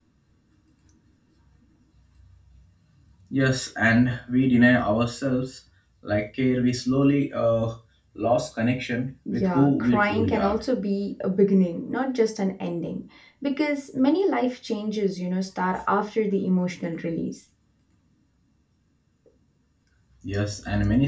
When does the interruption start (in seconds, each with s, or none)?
9.3 s